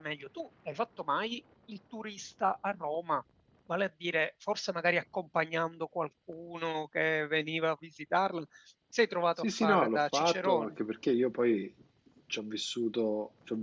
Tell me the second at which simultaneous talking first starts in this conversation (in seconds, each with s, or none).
9.4 s